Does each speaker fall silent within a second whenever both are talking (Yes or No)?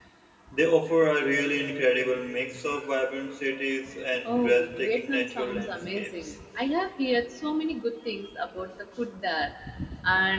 No